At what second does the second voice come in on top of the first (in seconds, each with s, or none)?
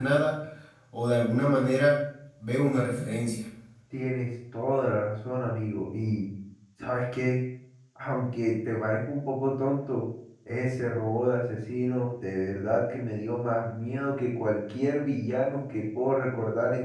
none